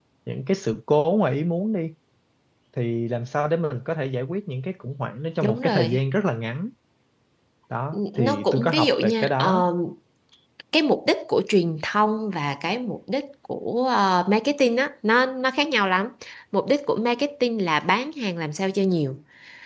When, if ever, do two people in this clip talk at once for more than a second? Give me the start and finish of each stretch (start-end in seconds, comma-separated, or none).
7.9-9.6